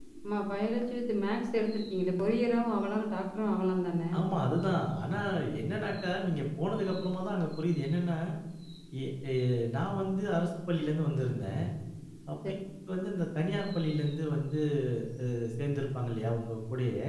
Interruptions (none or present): none